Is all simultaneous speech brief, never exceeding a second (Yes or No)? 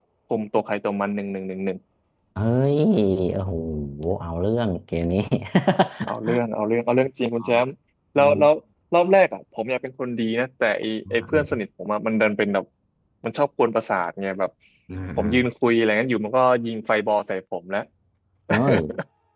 Yes